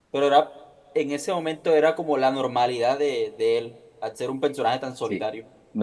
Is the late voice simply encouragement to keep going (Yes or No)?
No